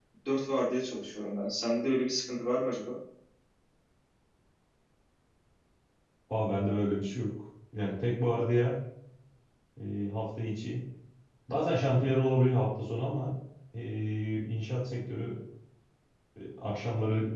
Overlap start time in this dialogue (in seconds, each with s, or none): none